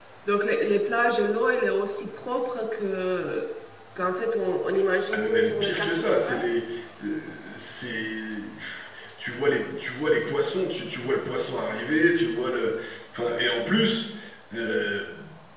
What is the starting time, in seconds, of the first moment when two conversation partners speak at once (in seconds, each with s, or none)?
5.1 s